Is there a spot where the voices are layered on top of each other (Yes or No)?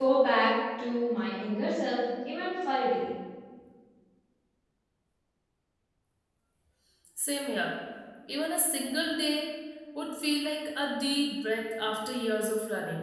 No